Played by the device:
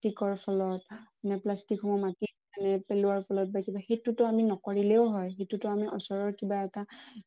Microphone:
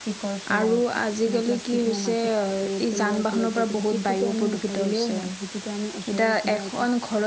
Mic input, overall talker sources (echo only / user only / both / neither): both